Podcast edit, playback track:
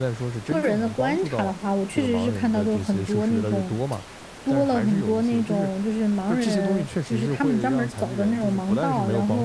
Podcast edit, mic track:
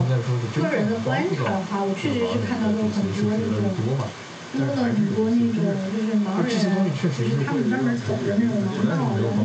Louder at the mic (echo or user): echo